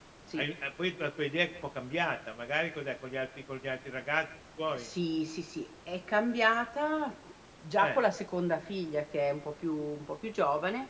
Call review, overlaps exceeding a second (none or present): none